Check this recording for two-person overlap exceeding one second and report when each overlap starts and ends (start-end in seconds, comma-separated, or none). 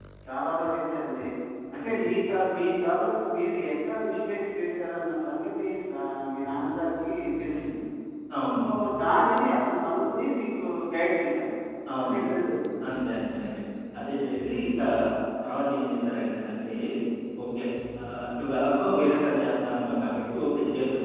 none